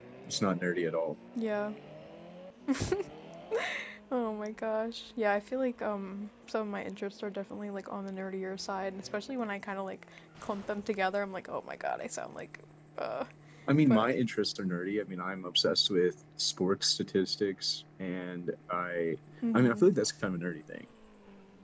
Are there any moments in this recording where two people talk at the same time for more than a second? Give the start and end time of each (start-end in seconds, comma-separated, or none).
none